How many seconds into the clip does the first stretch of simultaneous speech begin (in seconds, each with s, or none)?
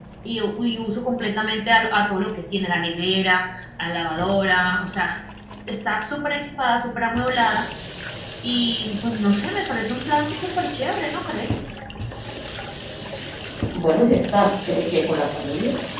none